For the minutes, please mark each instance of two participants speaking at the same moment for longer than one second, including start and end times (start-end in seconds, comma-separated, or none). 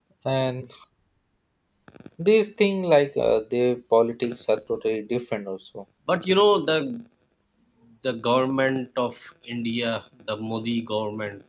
none